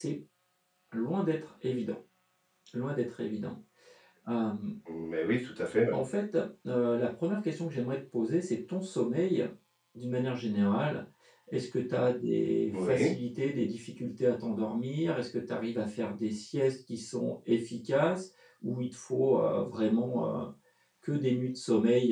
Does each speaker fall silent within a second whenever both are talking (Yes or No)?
Yes